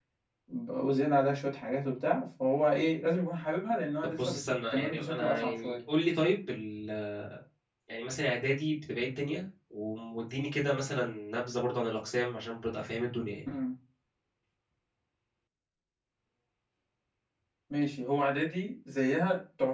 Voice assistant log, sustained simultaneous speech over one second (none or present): present